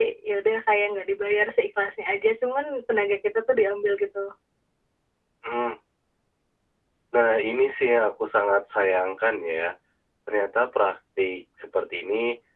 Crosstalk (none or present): none